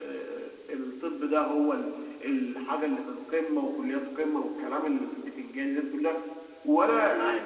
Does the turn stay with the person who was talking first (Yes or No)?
Yes